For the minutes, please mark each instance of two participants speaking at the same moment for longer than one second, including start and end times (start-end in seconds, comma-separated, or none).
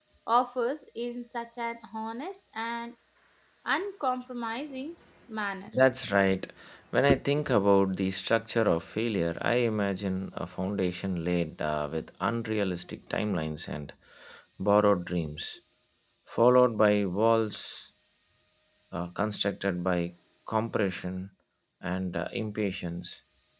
none